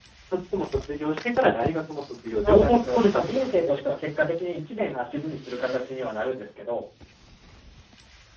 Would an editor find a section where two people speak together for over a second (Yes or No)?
Yes